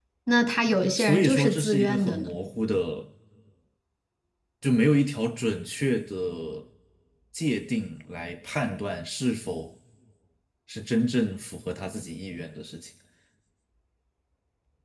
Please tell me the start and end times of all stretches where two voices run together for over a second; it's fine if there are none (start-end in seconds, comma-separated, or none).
1.0-2.3